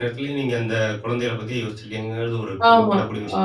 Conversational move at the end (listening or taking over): taking over